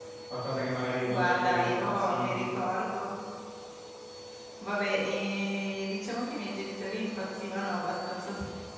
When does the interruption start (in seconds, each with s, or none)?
1.1 s